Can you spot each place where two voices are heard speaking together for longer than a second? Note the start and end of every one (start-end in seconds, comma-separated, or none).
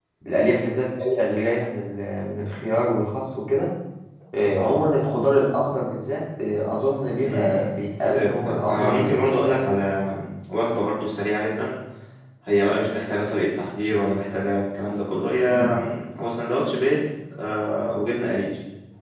8.2-9.7